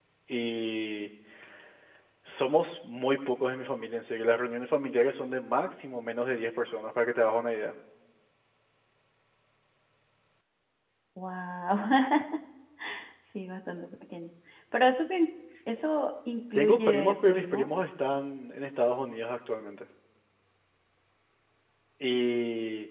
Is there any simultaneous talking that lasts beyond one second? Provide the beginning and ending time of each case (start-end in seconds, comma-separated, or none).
16.5-17.9